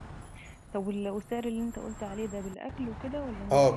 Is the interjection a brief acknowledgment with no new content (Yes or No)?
No